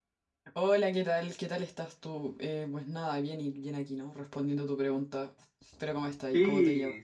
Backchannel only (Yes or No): No